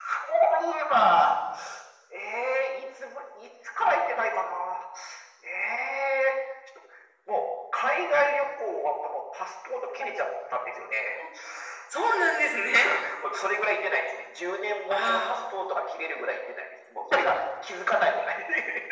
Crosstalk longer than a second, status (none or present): none